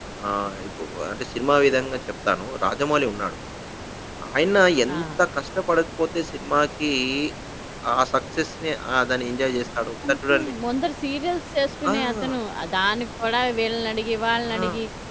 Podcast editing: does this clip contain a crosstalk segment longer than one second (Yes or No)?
No